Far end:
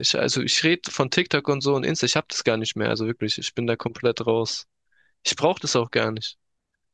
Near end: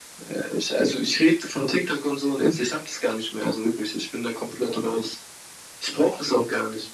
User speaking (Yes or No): No